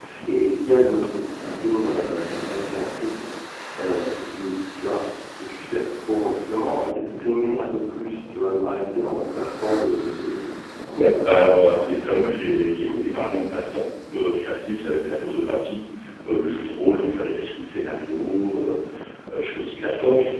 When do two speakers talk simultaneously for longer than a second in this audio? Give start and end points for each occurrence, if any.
11.8-13.3

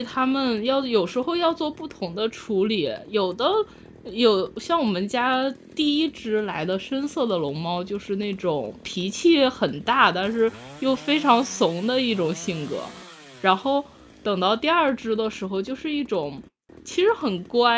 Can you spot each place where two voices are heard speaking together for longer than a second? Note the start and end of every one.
none

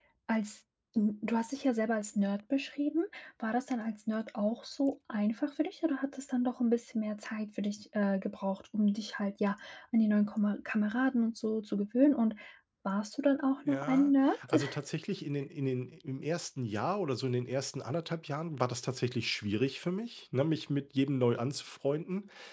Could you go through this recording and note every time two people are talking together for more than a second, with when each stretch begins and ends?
none

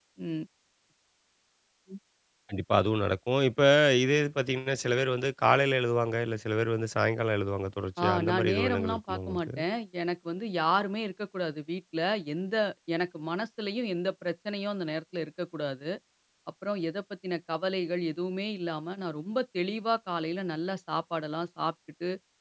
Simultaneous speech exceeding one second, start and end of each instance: 8.0-9.5

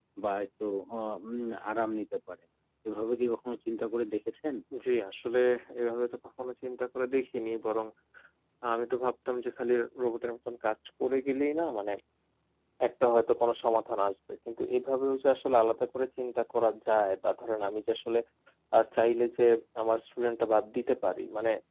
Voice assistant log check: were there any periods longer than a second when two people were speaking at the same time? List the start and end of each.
none

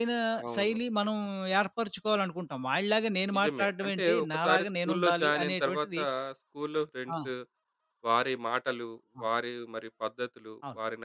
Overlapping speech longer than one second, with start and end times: 3.4-6.0

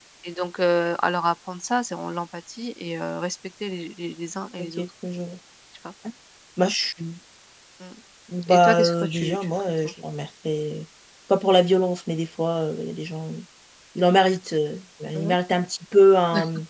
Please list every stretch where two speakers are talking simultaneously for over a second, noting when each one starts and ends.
8.5-9.9

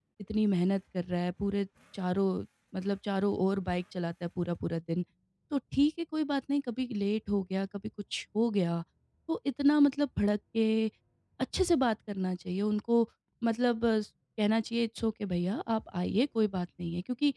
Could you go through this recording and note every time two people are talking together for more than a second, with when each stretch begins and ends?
none

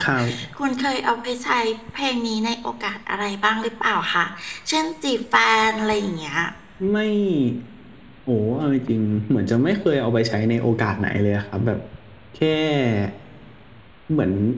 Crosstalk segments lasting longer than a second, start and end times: none

